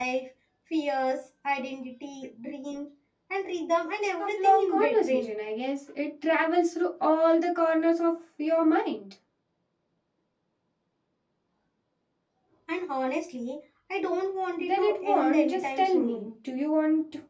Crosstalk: present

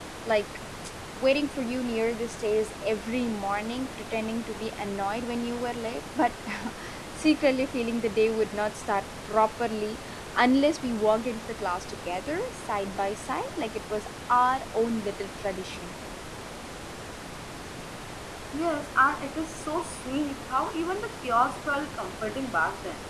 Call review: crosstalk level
none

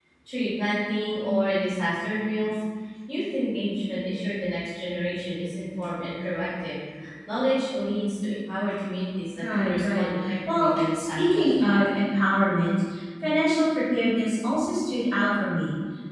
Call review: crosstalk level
present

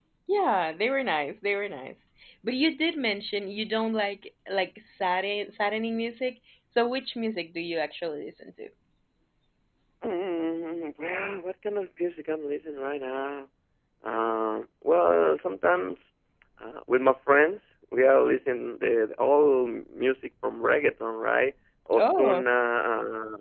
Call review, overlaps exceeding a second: none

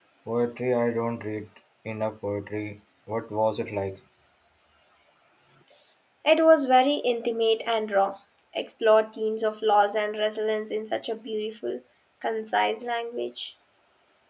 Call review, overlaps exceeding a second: none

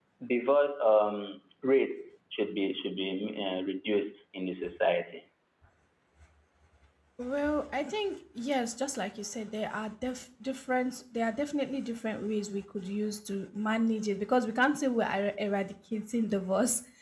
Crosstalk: none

